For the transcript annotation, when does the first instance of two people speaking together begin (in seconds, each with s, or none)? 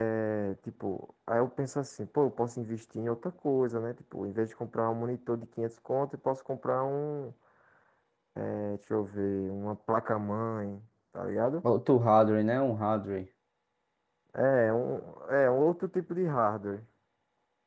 none